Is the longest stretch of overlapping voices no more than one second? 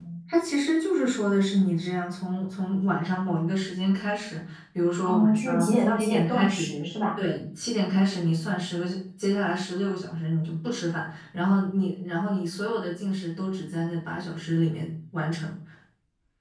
No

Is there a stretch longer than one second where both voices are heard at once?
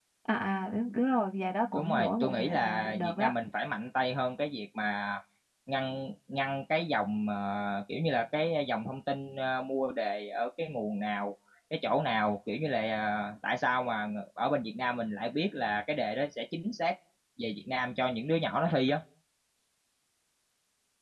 Yes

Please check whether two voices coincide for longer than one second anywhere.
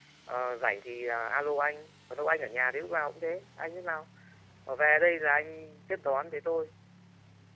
No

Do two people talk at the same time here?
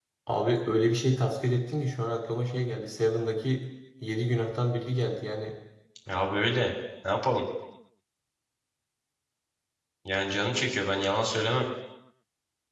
No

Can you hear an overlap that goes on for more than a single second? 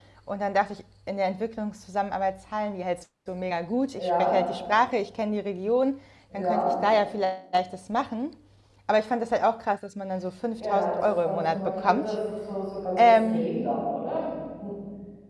Yes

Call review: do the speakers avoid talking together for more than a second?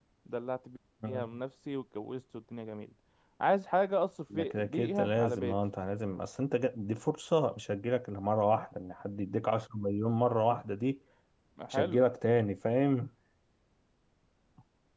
No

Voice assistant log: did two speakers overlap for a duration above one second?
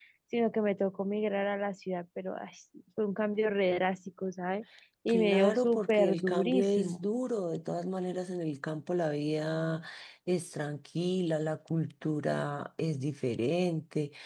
Yes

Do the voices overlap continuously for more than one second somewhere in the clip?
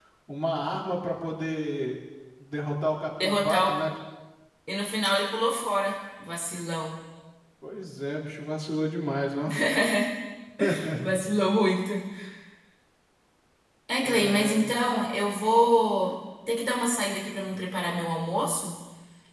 No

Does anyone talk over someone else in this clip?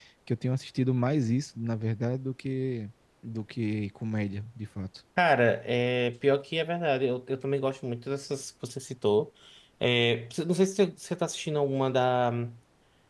No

